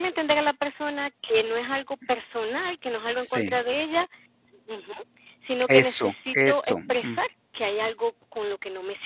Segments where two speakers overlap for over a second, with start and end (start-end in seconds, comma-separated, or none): 5.7-7.2